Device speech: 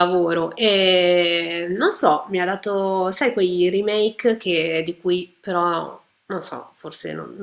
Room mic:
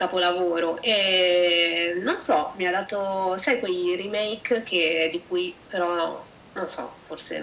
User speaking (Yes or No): No